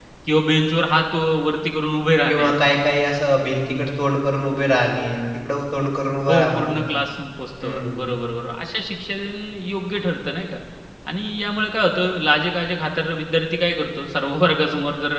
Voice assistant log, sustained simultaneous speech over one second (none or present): none